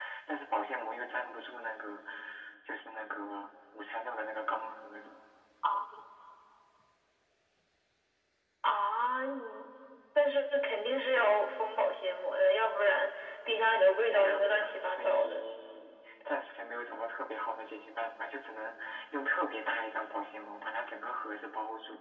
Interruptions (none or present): present